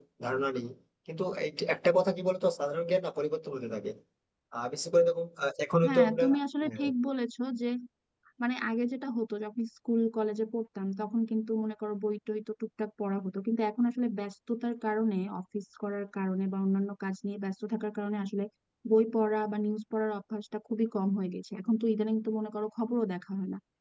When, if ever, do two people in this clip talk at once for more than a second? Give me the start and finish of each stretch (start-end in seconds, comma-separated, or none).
none